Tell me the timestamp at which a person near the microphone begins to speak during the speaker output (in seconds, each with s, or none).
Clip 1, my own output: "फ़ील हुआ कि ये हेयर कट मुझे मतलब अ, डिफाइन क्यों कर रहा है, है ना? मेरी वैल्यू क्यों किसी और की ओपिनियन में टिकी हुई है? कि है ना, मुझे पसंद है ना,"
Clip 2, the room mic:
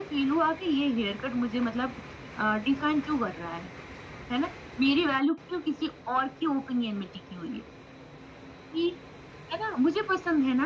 none